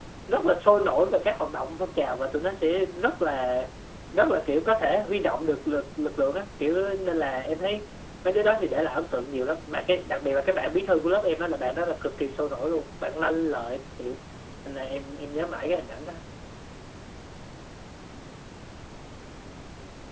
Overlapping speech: No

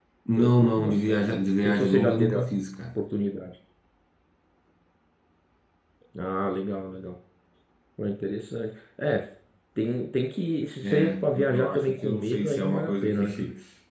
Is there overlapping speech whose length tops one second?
Yes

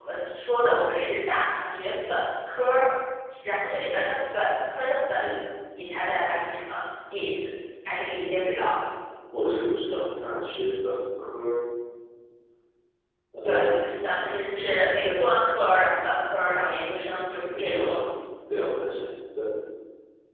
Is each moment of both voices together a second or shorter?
Yes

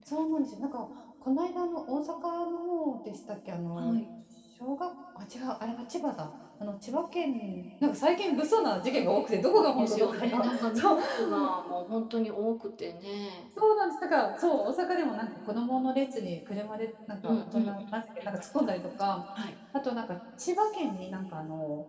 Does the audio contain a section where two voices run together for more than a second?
Yes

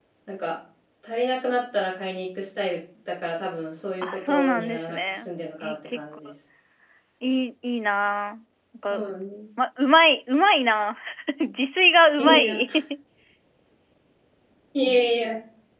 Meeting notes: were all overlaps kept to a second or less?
No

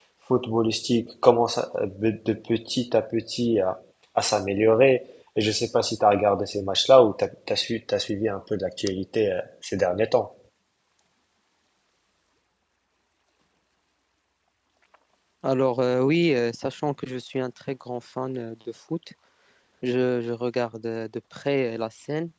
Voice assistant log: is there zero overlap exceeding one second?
Yes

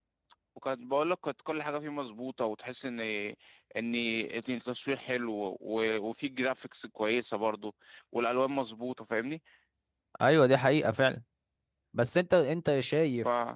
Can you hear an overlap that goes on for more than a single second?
No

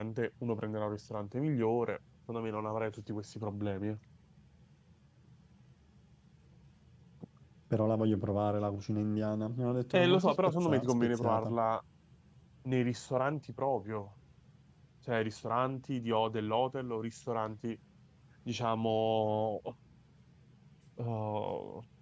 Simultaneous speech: Yes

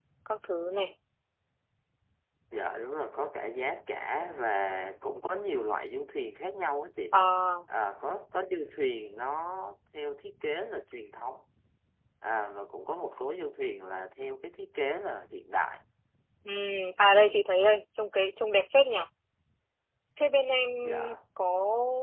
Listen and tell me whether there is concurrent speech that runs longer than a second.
No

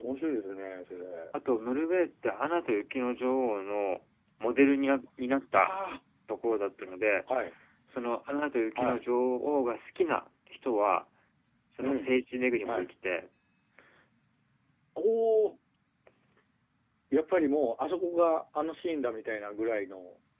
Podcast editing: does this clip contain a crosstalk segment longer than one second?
No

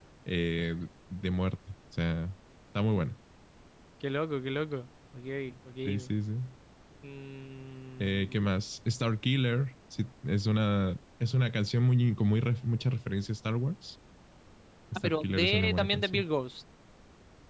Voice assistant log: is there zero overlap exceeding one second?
No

